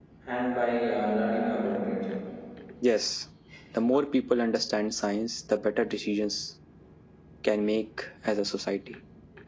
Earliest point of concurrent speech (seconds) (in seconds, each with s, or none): none